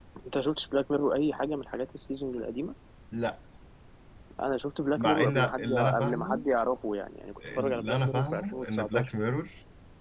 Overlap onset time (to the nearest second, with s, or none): 5 s